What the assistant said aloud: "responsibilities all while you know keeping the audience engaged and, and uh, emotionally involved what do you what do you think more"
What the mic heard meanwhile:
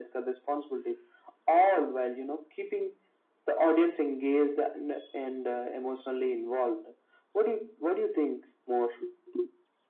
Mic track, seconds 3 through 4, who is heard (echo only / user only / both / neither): echo only